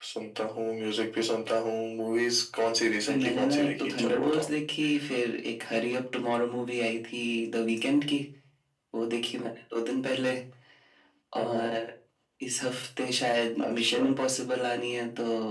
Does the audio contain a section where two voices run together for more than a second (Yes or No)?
Yes